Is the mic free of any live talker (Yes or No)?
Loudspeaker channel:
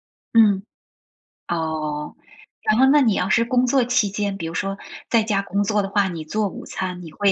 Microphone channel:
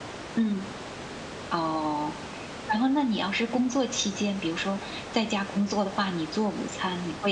Yes